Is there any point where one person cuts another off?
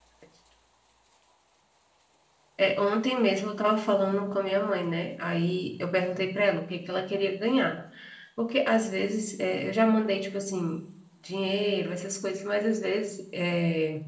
No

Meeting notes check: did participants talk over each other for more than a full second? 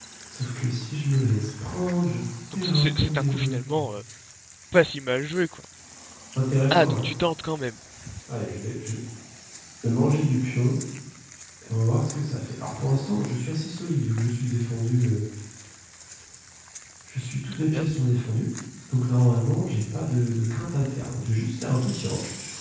Yes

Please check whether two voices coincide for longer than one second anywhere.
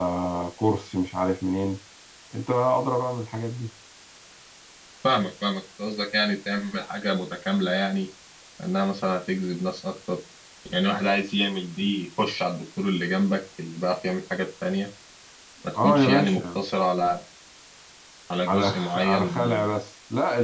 Yes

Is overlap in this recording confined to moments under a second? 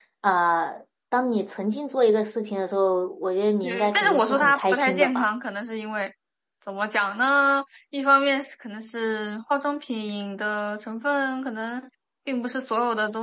No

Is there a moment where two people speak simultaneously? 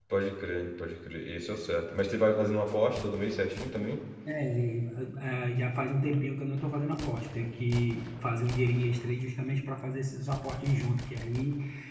No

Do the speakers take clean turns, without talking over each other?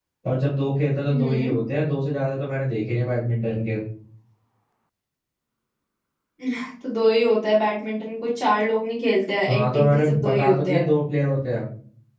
No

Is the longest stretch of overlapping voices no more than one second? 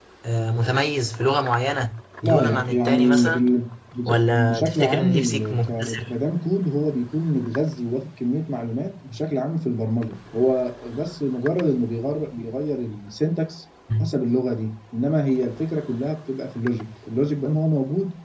No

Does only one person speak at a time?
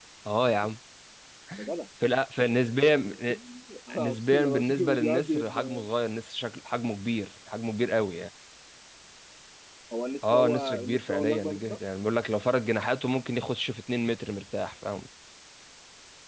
No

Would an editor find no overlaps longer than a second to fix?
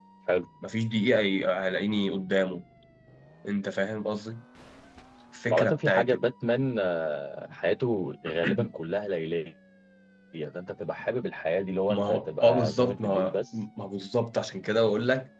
No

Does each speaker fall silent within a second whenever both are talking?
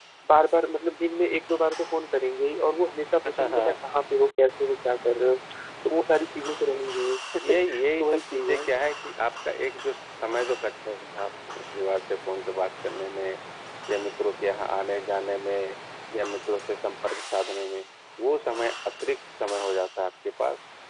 No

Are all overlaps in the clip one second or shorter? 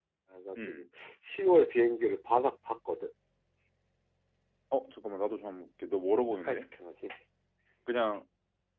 Yes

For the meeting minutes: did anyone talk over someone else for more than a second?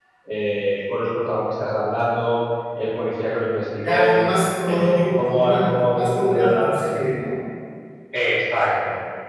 Yes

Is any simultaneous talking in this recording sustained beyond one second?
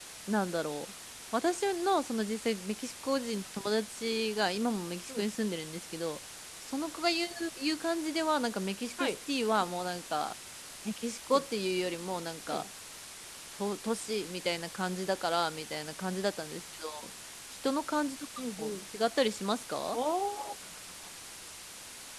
No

